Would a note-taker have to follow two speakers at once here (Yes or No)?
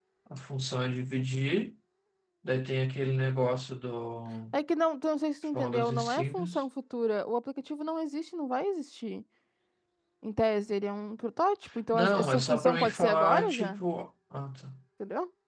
Yes